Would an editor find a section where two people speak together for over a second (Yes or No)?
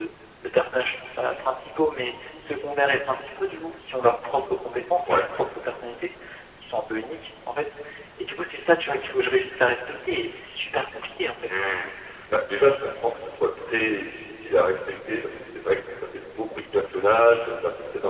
No